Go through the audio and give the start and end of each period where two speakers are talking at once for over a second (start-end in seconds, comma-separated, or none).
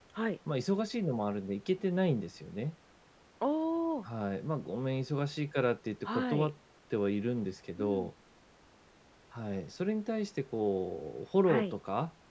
none